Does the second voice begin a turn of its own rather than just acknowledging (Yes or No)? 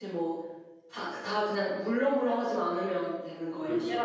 Yes